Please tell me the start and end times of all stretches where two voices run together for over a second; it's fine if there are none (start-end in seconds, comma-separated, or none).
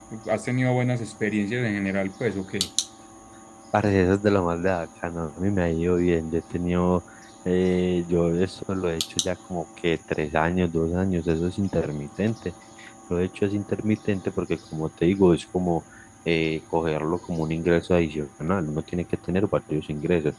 none